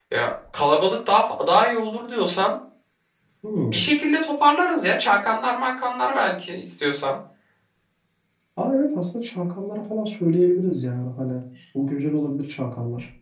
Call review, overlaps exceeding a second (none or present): none